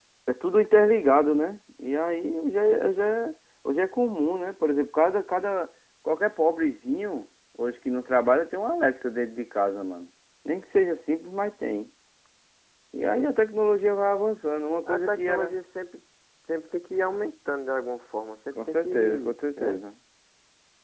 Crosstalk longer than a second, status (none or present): present